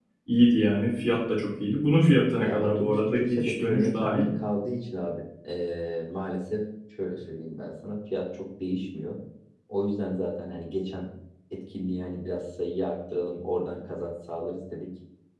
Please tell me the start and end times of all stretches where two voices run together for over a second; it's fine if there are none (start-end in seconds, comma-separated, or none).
2.4-4.2